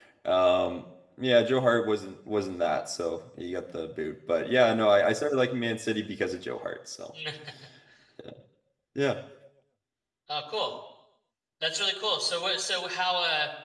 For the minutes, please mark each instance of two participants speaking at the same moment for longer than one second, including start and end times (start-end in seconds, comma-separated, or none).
none